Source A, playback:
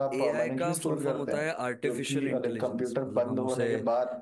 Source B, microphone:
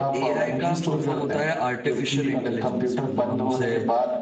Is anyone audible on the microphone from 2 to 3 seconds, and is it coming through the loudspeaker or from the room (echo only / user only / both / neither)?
echo only